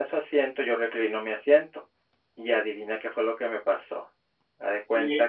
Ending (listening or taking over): taking over